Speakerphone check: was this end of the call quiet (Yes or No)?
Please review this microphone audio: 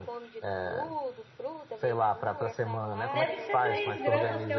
No